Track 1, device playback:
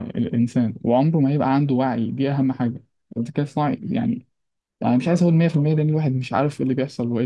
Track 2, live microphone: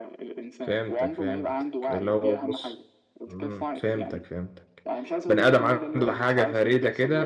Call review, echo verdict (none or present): present